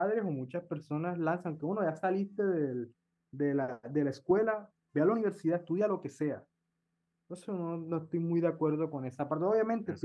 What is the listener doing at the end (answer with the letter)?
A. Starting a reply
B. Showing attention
B